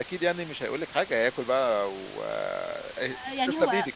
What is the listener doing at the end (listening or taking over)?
taking over